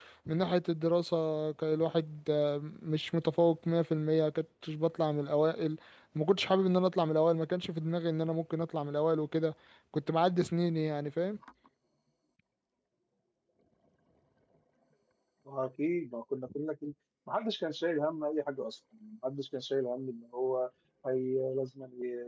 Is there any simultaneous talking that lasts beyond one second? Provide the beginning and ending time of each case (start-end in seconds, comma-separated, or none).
none